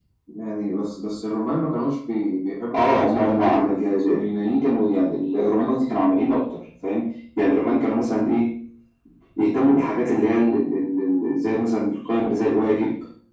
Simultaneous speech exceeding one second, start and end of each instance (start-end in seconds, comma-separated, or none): 2.7-4.2